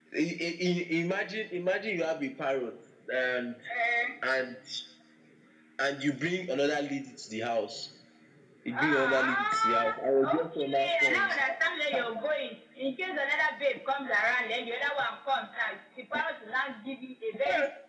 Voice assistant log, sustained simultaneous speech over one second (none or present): present